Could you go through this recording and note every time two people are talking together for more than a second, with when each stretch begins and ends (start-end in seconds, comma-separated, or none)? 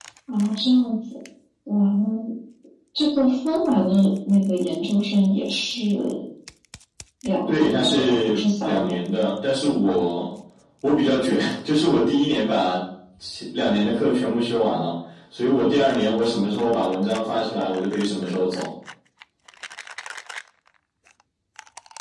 7.5-9.1